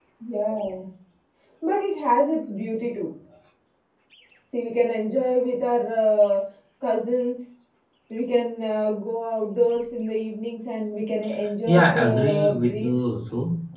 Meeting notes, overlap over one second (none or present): present